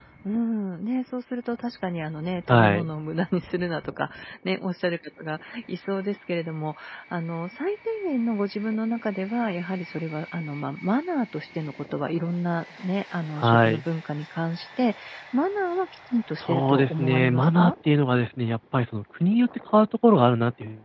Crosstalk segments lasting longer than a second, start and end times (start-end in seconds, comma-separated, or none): 16.4-17.7